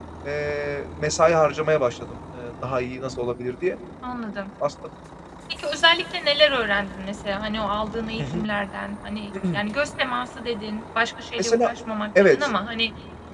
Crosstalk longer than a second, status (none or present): none